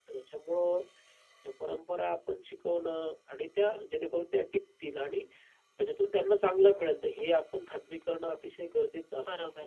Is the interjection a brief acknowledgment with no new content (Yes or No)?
No